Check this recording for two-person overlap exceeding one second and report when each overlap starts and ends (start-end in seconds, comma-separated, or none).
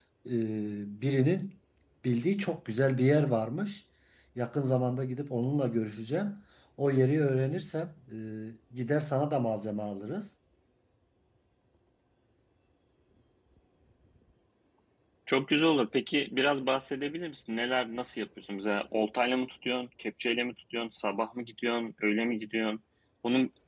none